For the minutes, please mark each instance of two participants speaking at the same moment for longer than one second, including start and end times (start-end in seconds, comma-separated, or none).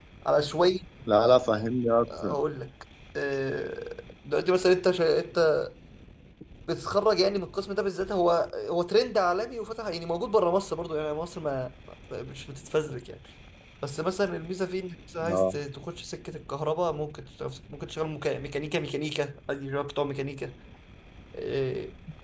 none